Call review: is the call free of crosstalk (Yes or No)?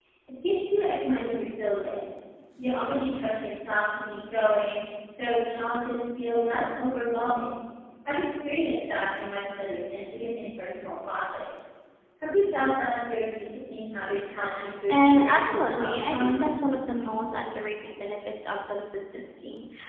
No